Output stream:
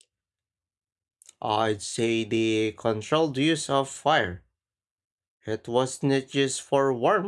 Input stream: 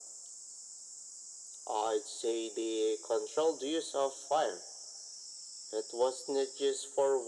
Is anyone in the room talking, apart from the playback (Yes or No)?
No